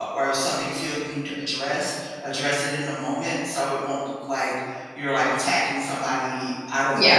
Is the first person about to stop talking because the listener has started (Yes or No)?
No